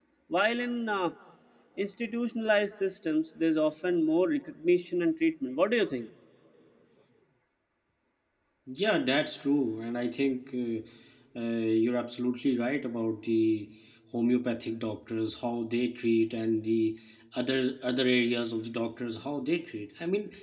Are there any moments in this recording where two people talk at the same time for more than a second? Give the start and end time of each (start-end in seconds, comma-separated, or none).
none